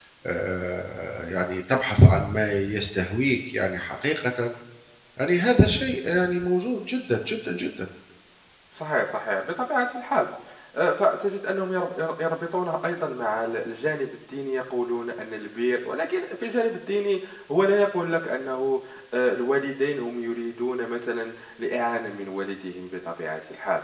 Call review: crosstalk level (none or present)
none